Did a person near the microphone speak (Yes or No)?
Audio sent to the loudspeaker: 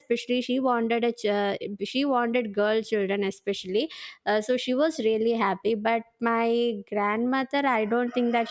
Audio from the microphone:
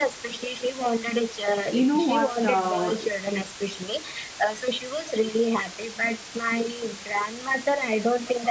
Yes